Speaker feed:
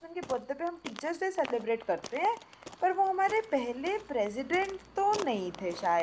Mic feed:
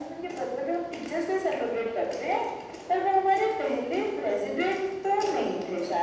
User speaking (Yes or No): No